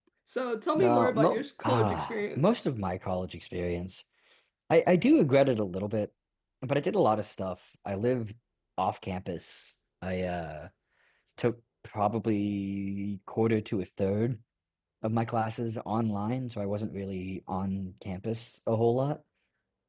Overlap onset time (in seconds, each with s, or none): 0.8 s